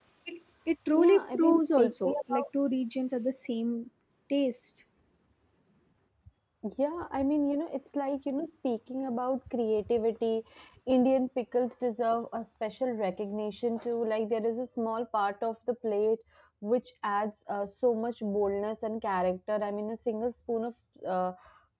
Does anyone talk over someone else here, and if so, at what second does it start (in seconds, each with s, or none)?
0.9 s